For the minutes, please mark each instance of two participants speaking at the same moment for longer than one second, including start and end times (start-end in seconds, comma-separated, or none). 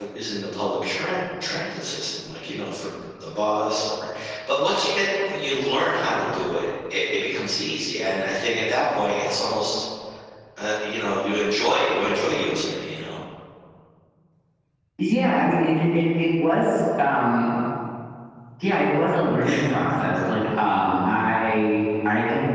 none